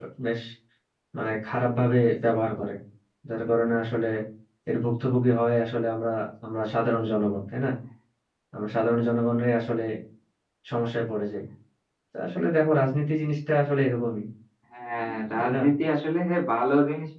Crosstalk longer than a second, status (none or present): none